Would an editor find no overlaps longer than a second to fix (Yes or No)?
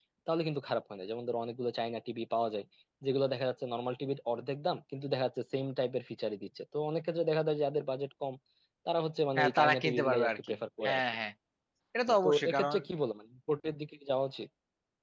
No